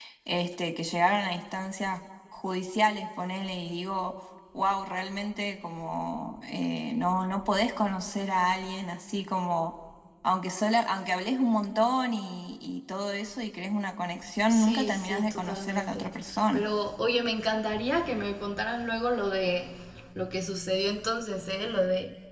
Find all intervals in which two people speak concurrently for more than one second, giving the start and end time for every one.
14.5-16.1

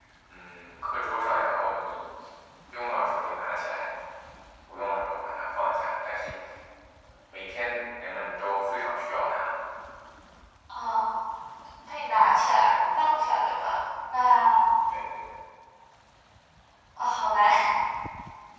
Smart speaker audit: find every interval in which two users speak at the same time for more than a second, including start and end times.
none

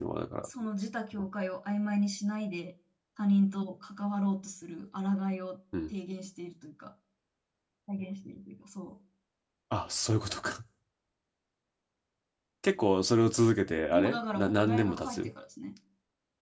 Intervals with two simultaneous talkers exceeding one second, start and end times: 13.9-15.3

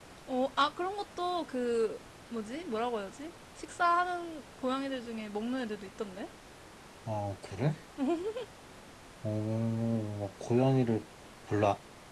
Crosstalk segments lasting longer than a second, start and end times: none

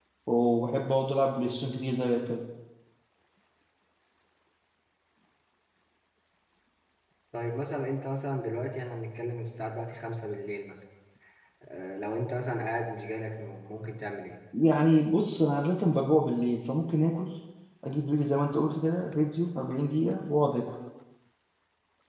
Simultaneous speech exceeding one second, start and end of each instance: none

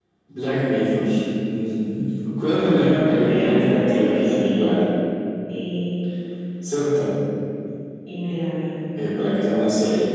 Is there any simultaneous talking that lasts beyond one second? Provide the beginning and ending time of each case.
3.0-4.7

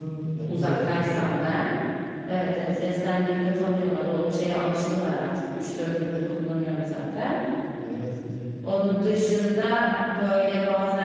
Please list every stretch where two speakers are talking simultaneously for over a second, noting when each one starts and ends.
none

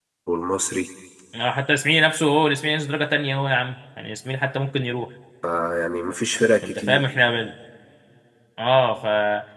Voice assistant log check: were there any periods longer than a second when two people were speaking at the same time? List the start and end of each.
none

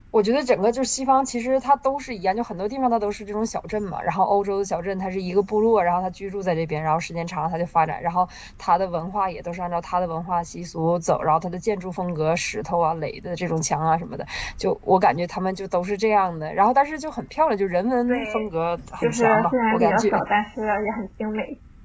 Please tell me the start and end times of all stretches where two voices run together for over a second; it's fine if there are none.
19.0-20.2

